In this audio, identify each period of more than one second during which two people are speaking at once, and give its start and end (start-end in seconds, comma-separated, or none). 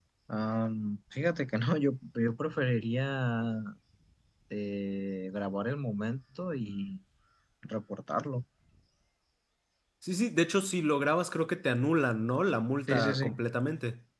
none